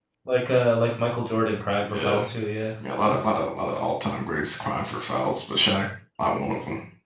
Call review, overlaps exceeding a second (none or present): none